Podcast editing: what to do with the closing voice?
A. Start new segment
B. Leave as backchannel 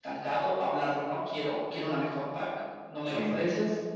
B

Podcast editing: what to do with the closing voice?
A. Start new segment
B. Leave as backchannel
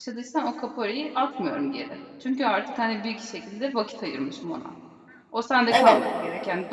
B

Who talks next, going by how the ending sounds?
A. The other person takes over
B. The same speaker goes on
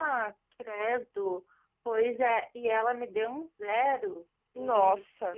B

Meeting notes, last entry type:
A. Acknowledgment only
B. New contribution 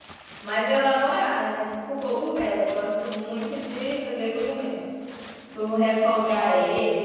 A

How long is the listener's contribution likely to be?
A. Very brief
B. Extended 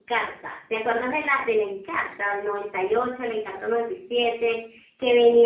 A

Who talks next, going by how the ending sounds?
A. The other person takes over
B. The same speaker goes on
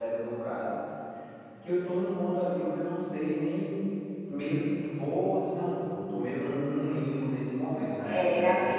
A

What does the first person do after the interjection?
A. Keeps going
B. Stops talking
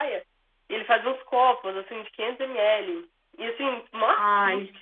A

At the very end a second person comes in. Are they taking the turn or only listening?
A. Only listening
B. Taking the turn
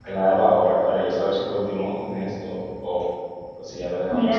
B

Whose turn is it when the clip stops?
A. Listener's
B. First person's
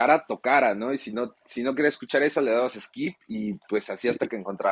B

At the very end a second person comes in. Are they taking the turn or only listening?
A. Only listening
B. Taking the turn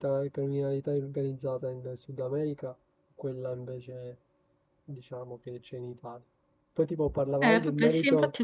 B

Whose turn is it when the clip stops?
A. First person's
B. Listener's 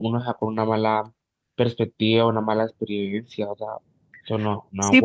B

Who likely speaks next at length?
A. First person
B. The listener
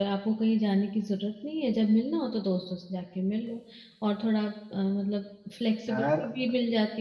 A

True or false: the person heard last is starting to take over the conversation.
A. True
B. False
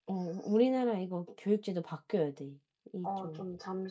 A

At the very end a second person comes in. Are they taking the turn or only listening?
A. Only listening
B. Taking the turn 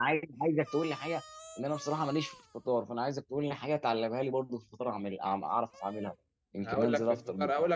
B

